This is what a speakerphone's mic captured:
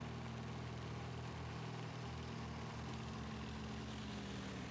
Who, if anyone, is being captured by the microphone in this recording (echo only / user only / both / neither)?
neither